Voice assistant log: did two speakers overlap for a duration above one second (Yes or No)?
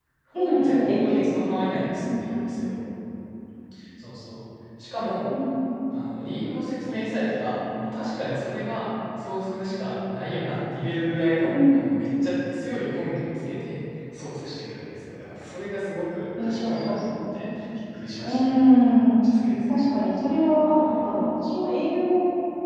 Yes